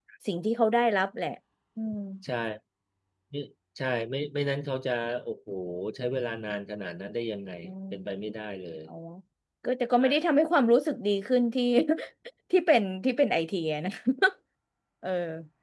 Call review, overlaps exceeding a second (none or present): none